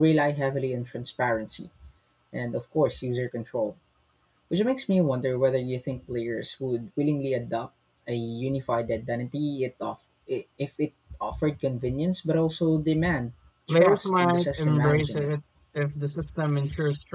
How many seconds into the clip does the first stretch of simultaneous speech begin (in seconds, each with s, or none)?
13.7 s